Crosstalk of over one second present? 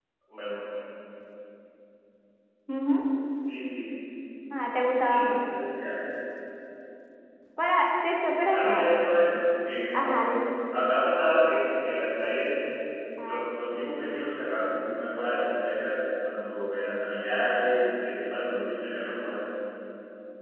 No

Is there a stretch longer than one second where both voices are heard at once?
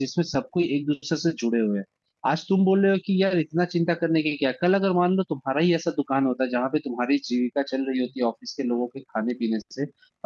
No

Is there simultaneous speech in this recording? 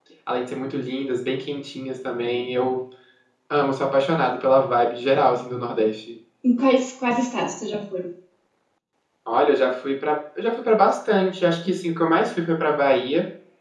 No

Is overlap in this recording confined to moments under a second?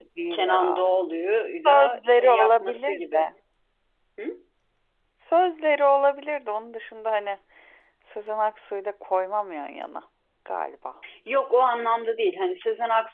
No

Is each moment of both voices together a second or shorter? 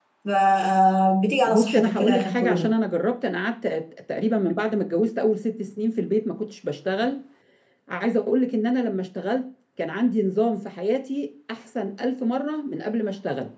No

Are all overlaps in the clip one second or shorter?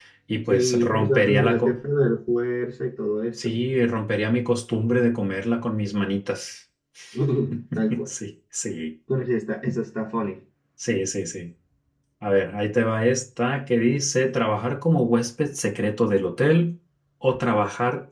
No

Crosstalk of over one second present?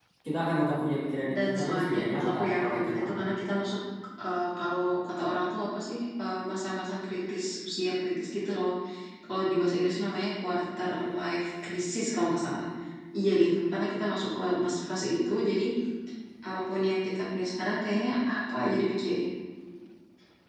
Yes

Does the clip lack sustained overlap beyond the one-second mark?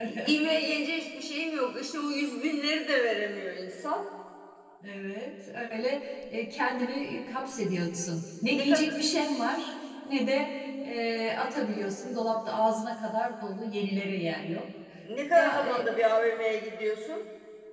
Yes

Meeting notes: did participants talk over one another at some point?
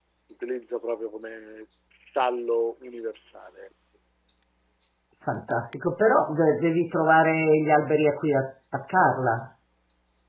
No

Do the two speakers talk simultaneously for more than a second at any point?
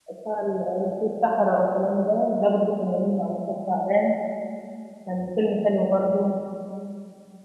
No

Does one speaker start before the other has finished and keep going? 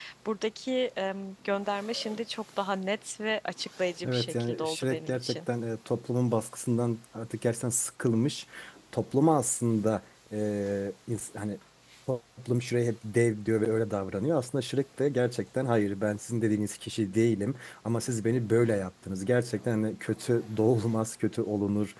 Yes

